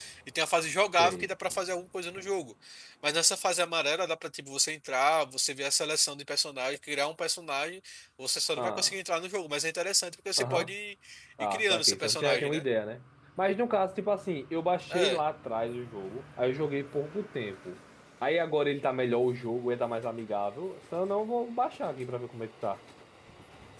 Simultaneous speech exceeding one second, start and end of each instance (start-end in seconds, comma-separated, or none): 11.4-12.6